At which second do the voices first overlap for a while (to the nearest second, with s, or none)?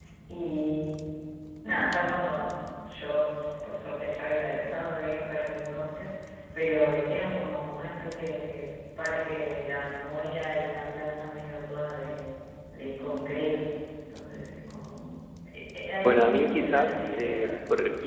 16 s